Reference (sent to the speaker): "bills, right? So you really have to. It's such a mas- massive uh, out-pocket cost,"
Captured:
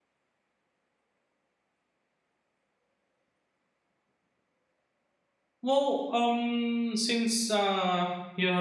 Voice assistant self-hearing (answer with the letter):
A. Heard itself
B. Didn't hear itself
B